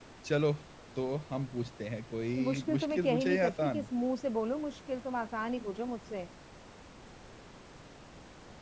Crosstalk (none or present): present